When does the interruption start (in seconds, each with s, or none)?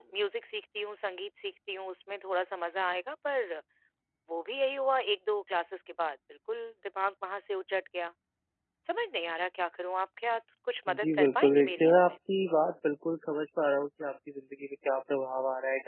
10.9 s